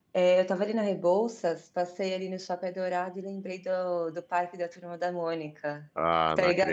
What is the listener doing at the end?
taking over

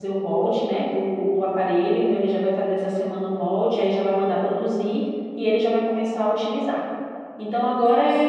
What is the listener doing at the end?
listening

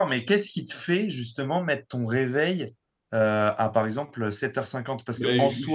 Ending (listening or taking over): taking over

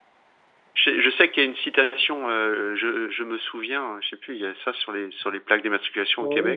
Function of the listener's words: taking over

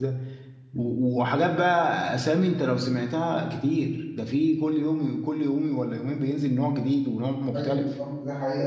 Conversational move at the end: taking over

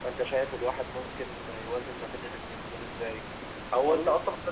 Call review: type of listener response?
listening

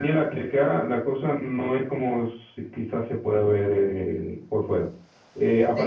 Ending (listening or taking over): listening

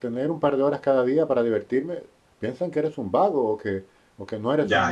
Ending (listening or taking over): listening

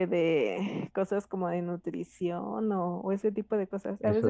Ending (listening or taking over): listening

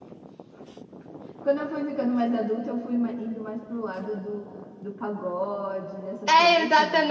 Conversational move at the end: taking over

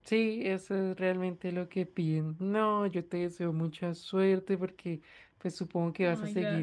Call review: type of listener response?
listening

